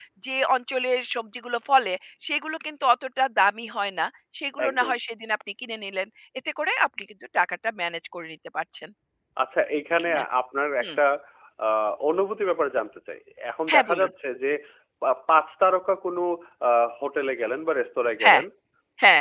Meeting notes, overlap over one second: none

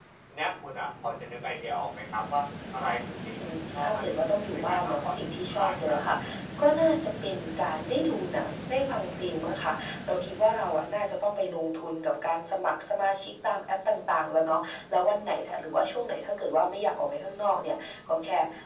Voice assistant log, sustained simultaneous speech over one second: present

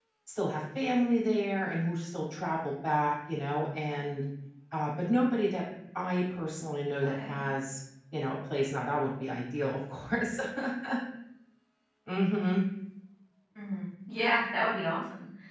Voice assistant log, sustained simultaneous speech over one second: none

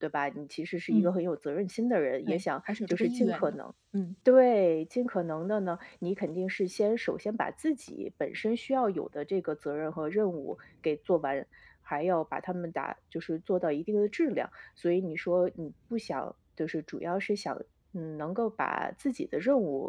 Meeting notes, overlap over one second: present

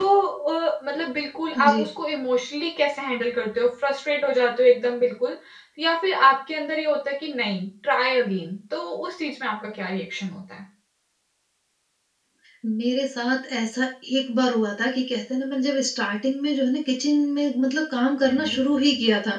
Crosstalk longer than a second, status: none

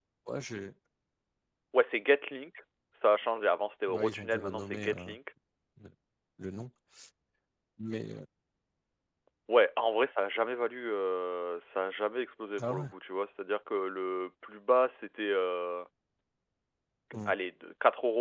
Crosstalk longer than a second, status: present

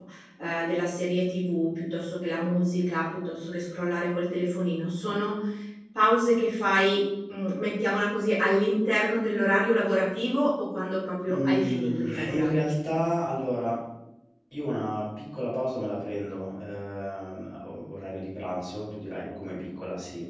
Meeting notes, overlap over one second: present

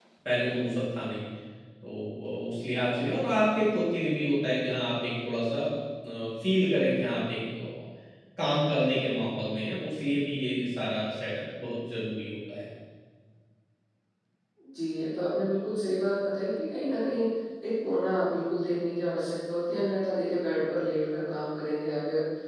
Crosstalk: none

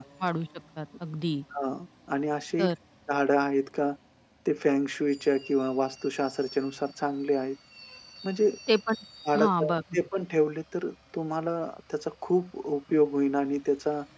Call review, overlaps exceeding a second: none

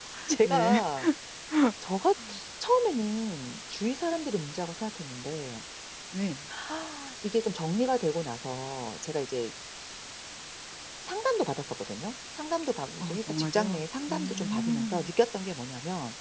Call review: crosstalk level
present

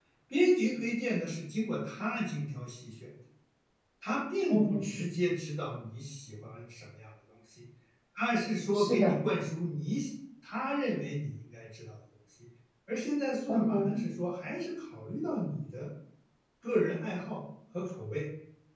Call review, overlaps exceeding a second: none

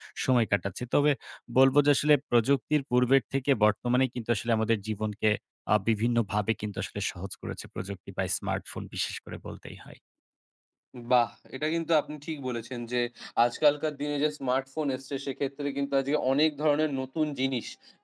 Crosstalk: none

